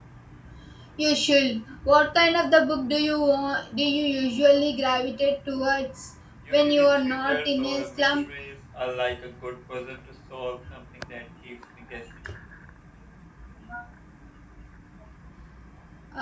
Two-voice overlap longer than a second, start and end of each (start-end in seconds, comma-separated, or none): 6.5-8.2